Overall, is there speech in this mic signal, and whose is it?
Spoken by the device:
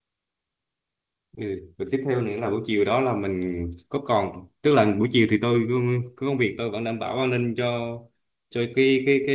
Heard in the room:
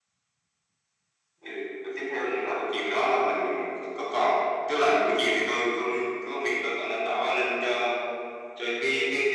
echo only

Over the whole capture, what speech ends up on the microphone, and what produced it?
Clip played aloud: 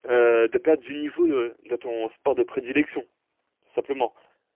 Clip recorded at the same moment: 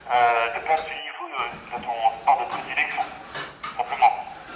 echo only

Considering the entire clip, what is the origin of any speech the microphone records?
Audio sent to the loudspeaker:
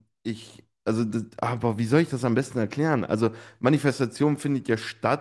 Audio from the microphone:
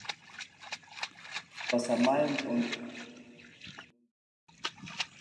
user only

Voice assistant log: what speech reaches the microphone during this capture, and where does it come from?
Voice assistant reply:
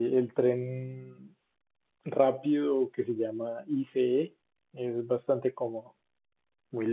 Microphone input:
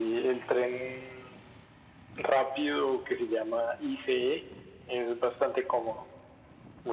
echo only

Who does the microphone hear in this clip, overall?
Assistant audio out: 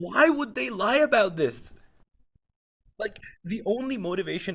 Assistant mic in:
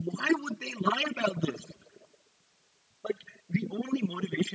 echo only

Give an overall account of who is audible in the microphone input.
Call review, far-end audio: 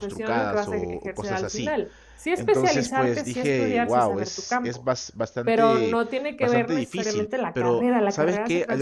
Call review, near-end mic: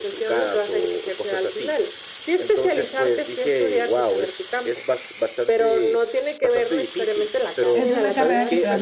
both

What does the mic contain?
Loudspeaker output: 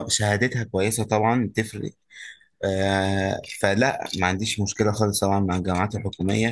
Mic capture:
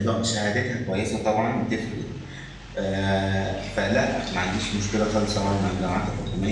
echo only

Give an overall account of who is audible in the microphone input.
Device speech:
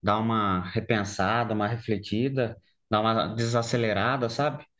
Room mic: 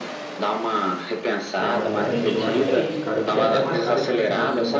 both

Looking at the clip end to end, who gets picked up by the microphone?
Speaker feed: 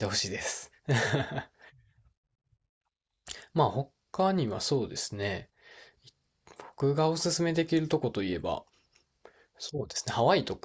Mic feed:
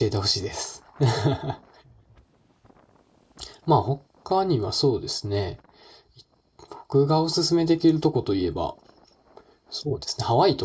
echo only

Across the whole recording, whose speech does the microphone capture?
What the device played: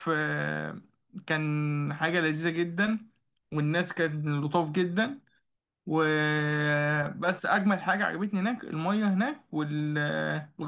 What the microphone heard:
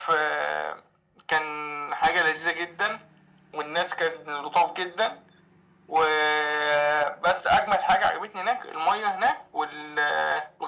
echo only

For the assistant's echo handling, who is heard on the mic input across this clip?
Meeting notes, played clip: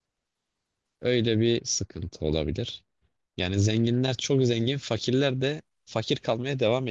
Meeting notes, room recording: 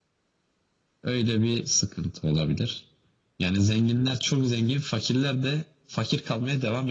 echo only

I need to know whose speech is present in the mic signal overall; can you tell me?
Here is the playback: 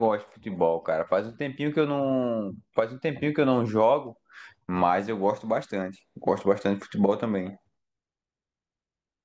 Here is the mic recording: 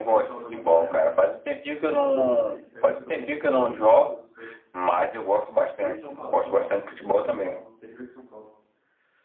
both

